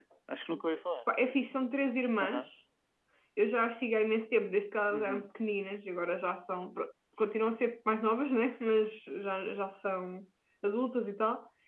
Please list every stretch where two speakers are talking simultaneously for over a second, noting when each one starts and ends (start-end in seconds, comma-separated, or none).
none